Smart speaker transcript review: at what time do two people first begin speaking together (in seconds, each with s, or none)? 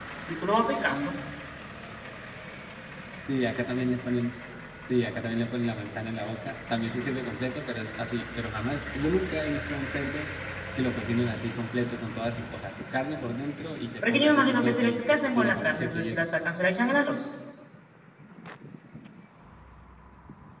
14.0 s